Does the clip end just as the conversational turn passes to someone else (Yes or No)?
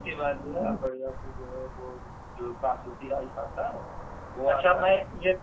Yes